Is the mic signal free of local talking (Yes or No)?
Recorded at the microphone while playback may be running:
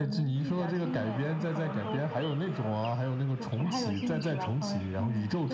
Yes